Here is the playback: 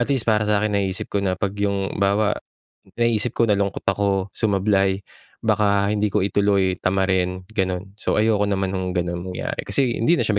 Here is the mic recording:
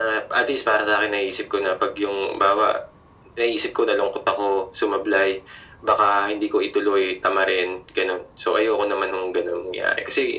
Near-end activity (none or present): none